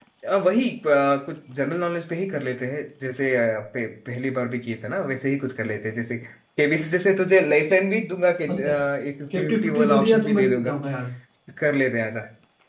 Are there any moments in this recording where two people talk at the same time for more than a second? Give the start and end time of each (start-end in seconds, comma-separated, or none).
9.3-10.7